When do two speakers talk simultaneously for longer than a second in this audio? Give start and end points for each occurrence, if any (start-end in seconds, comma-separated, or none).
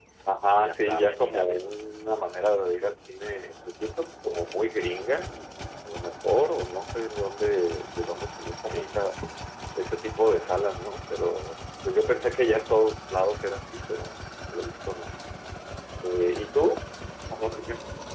0.6-1.8